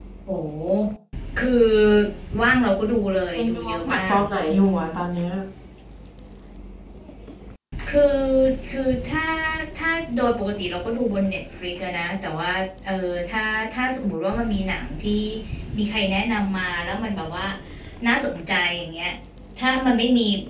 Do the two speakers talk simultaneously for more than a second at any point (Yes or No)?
Yes